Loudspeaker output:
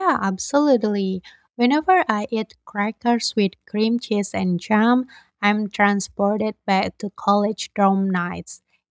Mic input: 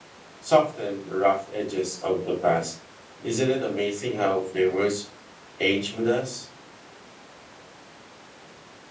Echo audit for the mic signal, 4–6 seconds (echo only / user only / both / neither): user only